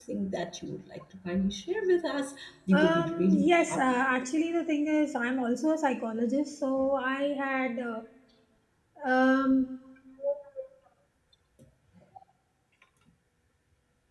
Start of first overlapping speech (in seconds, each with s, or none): 2.7 s